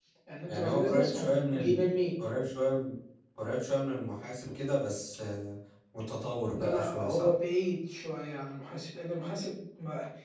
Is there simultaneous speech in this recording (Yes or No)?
Yes